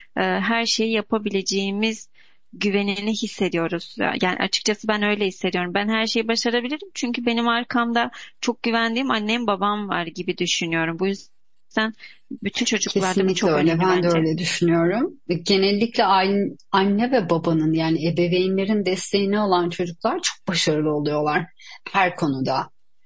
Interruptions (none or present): present